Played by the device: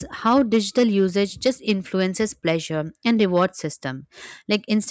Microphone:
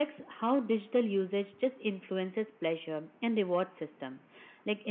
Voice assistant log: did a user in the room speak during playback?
No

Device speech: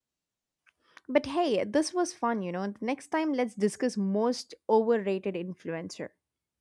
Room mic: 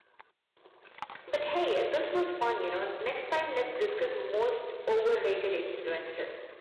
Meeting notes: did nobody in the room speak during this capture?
Yes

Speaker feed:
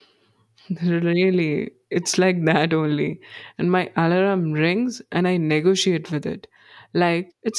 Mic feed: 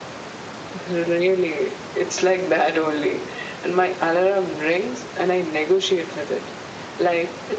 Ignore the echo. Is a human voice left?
No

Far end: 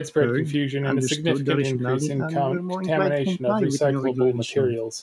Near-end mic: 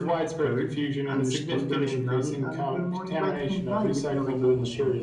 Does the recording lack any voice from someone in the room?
Yes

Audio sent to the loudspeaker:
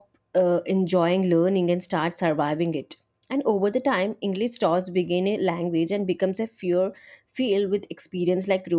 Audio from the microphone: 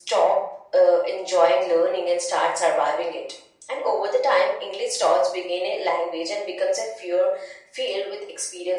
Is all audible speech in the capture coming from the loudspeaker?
Yes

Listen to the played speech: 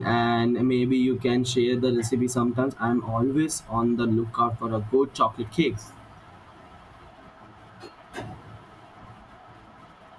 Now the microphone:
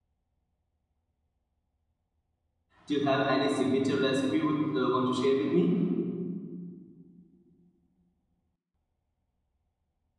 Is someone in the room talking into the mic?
Yes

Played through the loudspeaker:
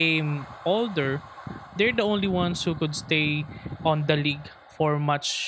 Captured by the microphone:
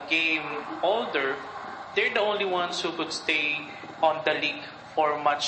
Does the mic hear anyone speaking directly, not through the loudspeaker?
Yes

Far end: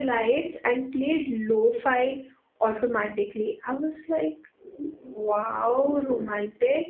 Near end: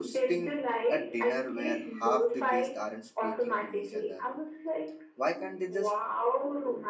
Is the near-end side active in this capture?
Yes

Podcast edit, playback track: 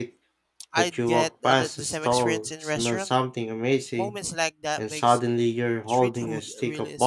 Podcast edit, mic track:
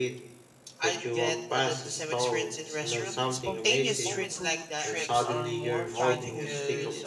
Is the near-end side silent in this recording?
No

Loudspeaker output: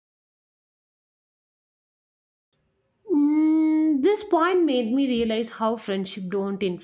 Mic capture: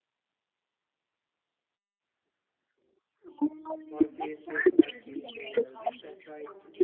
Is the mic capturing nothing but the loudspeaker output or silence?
No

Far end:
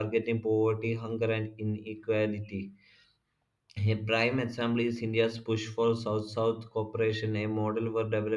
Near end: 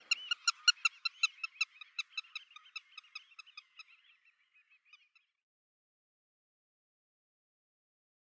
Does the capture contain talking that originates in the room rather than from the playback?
No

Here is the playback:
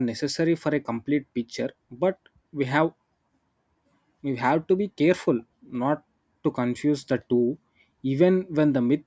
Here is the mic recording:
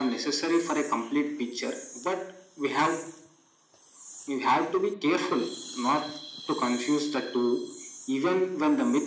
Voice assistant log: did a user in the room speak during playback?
No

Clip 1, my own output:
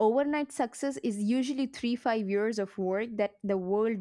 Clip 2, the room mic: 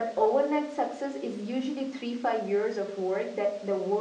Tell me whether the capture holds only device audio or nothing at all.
Yes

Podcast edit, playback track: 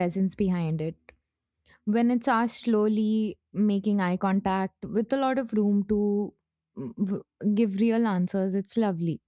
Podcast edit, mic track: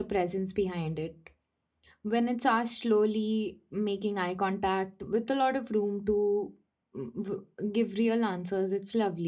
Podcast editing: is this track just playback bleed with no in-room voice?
Yes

